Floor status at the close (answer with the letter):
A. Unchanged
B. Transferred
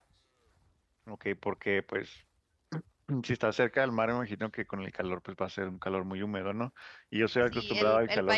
B